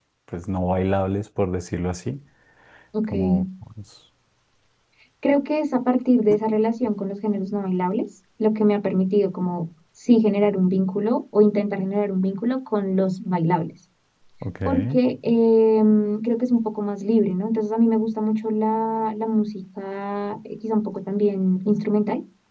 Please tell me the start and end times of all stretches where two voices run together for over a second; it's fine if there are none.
none

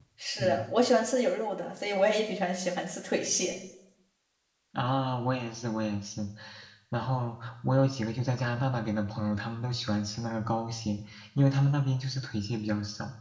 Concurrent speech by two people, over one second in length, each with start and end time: none

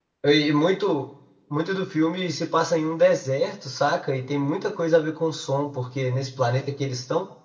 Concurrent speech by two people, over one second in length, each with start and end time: none

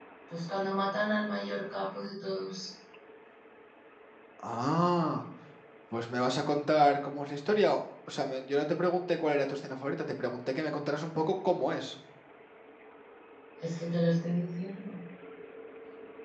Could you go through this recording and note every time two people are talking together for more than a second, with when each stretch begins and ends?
none

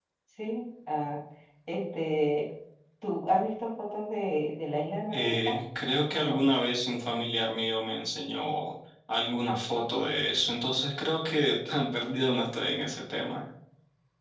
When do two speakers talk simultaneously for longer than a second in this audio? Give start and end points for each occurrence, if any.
none

